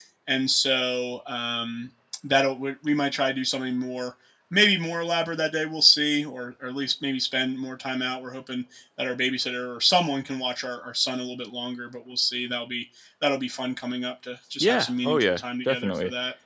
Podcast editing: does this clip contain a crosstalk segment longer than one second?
Yes, from 14.6 s

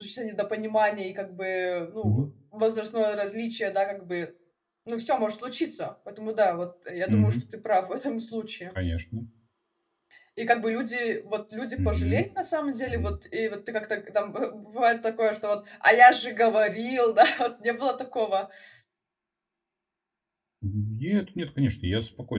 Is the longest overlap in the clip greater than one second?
No

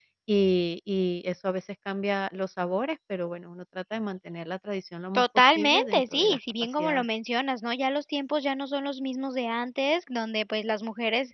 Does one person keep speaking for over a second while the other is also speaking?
Yes, from 5.2 s

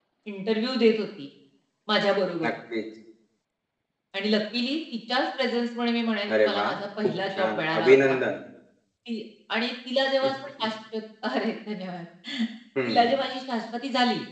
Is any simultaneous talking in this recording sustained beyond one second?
Yes, from 6.4 s

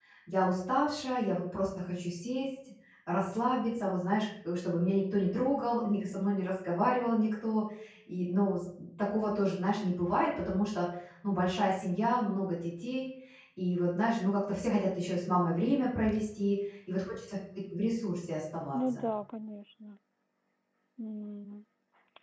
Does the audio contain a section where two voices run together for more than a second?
No

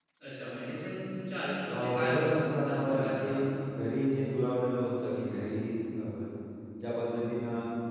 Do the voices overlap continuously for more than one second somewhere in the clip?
Yes, from 1.7 s

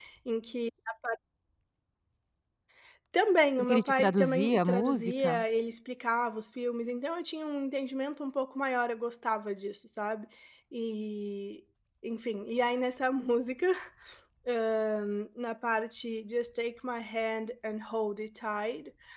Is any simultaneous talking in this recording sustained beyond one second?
Yes, from 3.6 s

